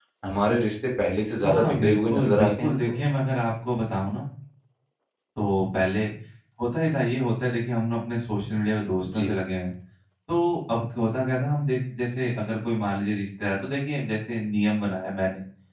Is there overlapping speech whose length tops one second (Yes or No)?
Yes